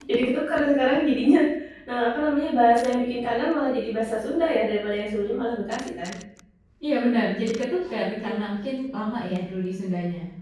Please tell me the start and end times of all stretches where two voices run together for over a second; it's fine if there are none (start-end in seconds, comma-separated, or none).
none